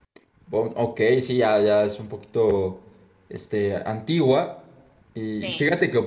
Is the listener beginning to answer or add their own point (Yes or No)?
No